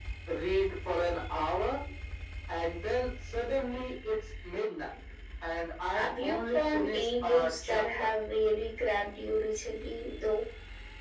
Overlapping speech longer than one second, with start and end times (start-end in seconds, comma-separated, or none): 5.9-7.8